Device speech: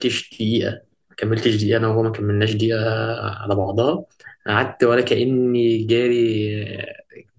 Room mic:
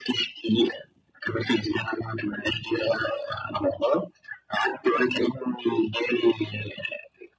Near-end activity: none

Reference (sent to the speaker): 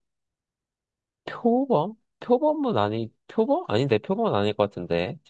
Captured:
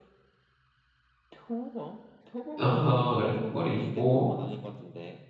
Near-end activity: present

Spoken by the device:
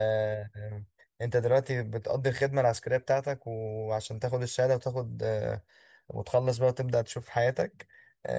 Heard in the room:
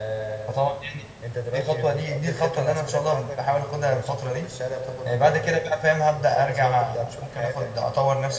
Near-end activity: present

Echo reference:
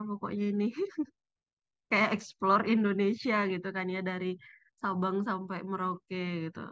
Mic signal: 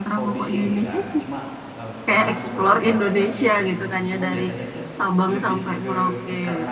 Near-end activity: present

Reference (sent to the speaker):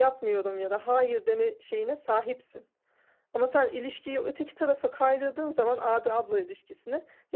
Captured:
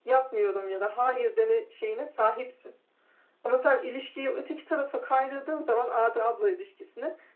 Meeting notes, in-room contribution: none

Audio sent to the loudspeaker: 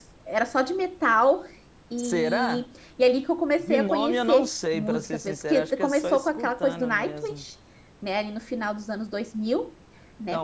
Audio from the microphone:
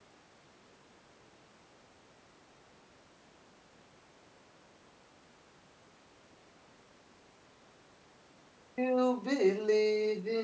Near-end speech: present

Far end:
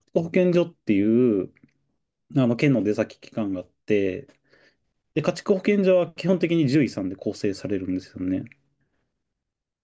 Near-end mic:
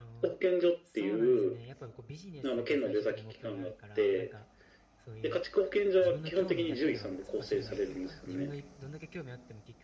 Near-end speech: present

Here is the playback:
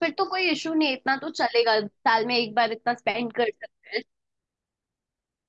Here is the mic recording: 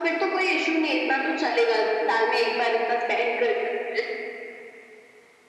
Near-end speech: none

